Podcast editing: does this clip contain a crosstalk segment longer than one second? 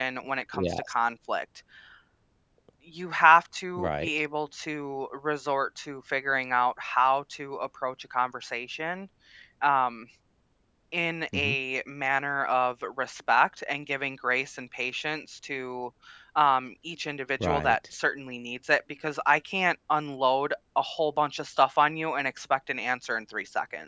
No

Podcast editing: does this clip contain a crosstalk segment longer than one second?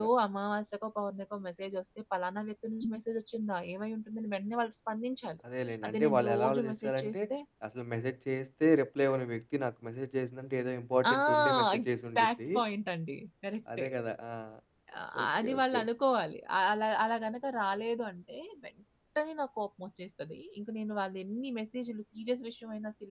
Yes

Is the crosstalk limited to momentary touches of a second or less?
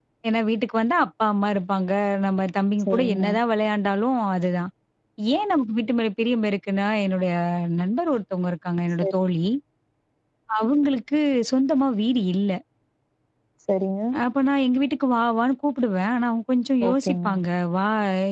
Yes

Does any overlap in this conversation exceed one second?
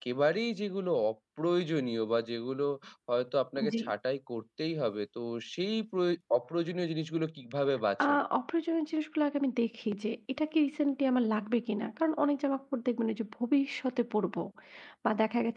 No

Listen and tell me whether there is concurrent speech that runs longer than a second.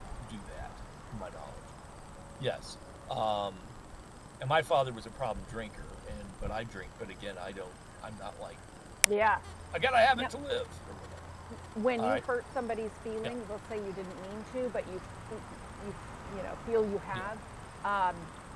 No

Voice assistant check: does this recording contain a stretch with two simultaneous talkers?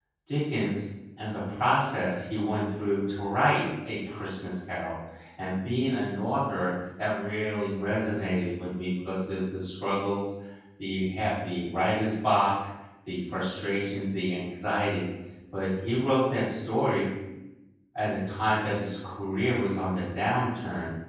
No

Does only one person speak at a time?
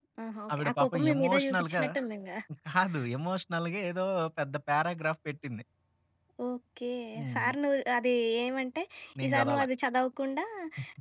No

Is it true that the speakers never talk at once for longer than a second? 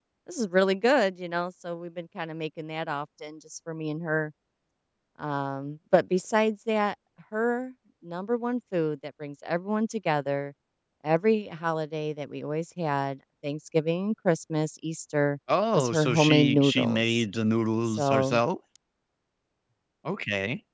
No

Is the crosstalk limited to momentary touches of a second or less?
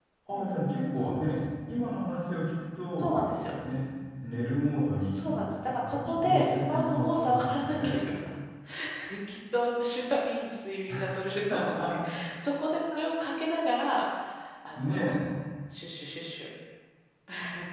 No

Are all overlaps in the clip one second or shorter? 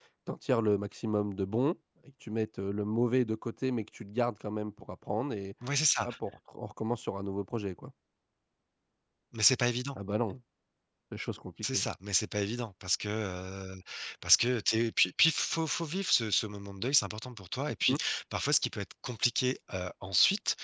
Yes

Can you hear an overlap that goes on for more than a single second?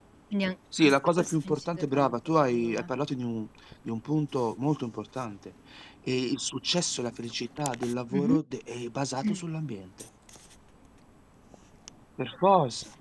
Yes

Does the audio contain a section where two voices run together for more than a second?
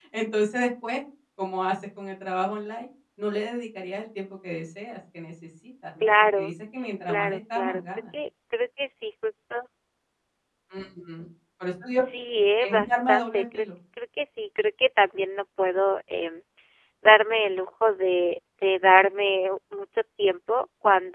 Yes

